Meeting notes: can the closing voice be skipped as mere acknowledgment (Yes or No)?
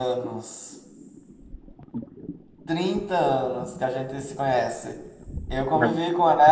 Yes